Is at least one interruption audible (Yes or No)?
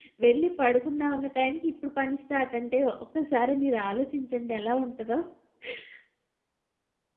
No